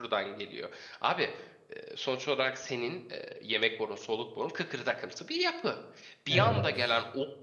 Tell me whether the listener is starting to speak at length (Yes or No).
No